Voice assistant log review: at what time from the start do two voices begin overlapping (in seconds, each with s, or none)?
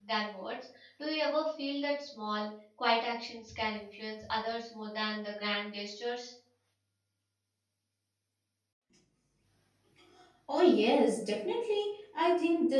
none